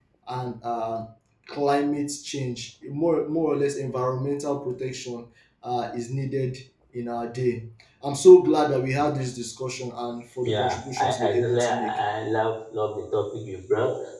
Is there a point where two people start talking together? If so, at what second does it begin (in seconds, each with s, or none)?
10.4 s